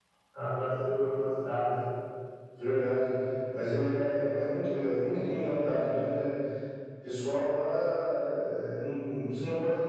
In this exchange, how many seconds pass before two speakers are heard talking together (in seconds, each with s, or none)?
none